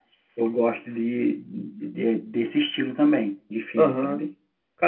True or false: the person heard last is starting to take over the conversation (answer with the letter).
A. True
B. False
A